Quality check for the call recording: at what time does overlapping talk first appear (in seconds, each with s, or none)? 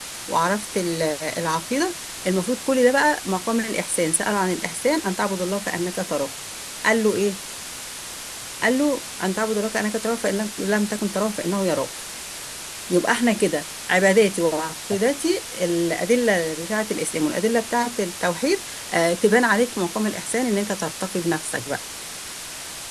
none